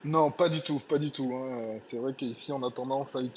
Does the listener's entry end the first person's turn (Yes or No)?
No